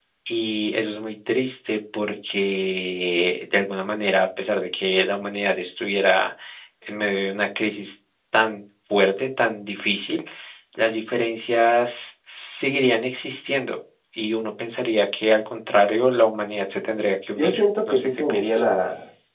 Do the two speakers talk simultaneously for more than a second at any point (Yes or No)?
Yes